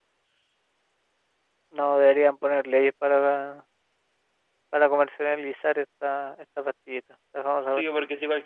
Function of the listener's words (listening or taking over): taking over